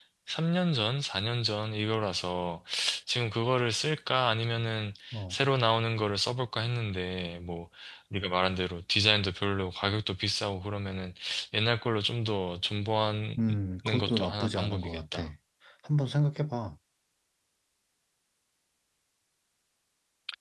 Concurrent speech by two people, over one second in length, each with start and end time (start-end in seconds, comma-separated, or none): 14.0-15.2